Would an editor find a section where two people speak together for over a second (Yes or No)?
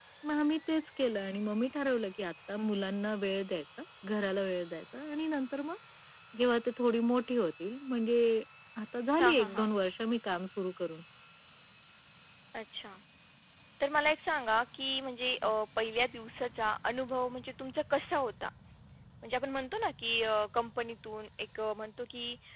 No